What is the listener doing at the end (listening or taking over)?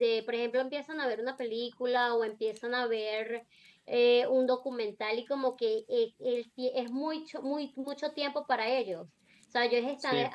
listening